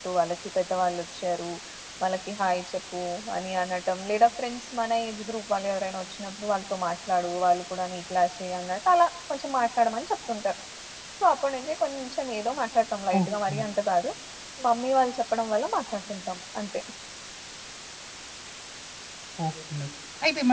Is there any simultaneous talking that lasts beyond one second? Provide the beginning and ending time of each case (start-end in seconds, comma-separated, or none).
none